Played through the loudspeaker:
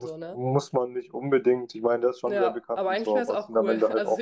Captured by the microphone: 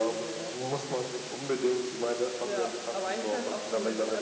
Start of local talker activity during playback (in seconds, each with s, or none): none